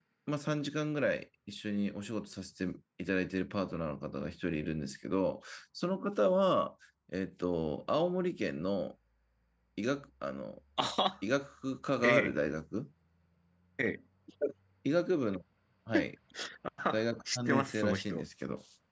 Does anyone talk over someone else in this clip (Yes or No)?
Yes